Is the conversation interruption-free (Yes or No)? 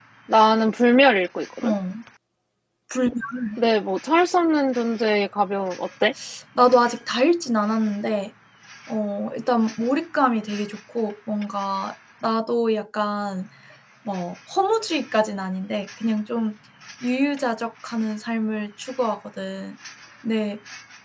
Yes